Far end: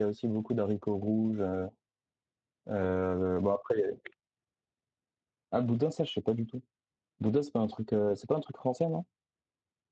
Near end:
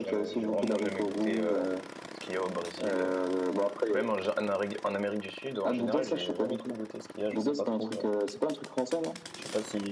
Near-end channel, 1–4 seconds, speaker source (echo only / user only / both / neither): both